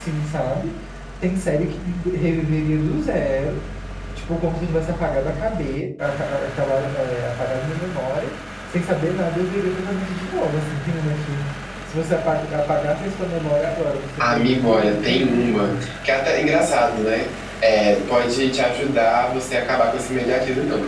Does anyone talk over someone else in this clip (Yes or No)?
Yes